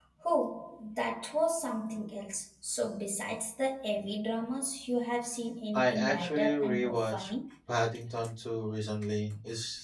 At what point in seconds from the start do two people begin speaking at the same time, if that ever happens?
5.7 s

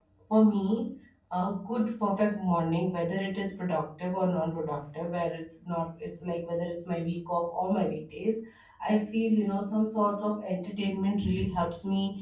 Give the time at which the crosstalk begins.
none

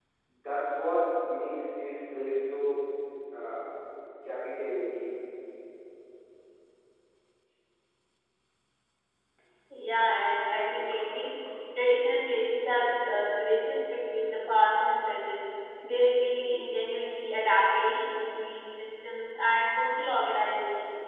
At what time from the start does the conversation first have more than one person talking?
none

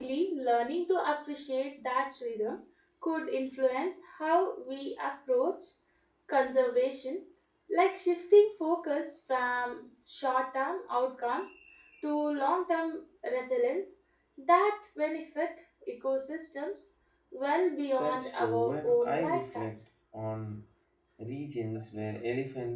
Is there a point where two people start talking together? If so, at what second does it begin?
18.0 s

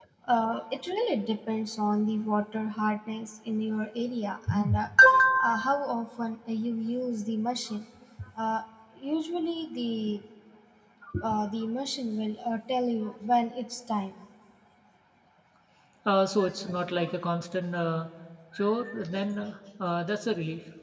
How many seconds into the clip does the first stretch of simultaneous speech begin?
none

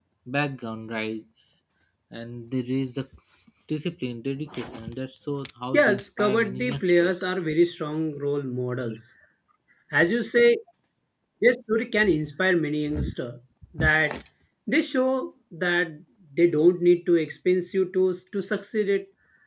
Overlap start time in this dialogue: 5.7 s

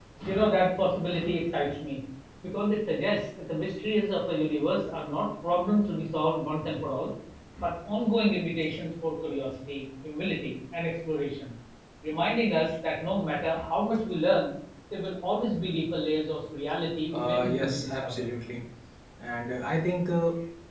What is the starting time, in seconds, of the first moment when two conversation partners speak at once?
17.1 s

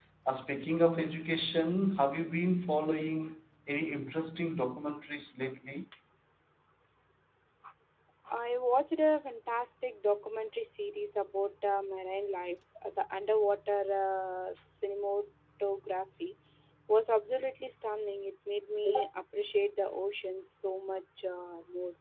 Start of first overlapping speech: none

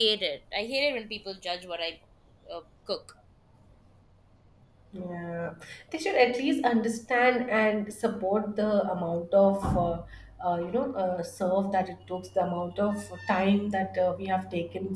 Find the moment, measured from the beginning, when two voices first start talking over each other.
none

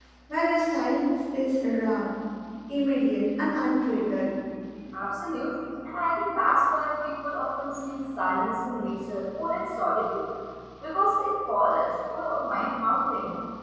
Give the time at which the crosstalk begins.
none

